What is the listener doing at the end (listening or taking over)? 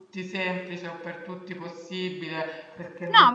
taking over